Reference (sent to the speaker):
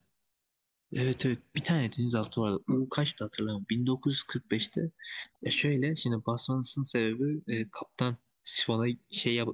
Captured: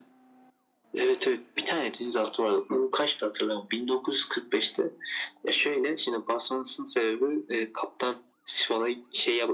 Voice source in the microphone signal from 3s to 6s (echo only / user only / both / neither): echo only